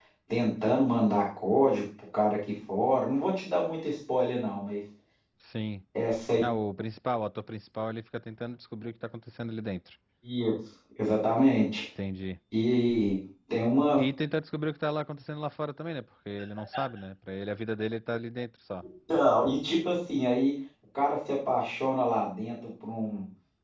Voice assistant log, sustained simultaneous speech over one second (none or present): none